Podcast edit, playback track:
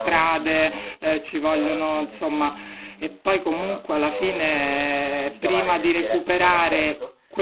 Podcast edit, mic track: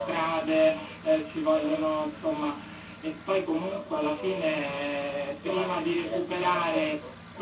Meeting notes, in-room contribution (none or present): none